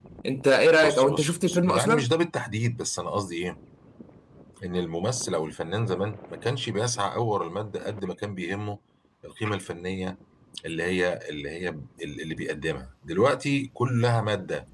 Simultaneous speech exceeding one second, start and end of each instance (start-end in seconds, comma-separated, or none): 0.8-2.1